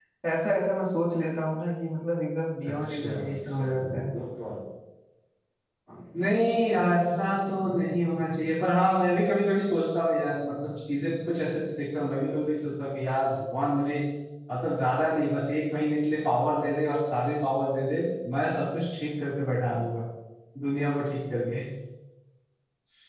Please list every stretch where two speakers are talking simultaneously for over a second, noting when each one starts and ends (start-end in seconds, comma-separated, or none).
2.7-4.1